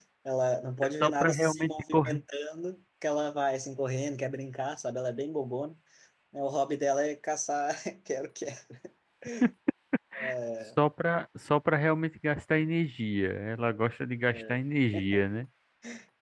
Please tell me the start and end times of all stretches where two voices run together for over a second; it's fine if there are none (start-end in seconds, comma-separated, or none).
1.0-2.2